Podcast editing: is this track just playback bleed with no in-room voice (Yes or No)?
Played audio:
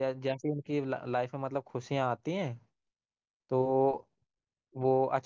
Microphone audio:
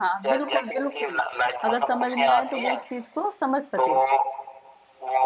No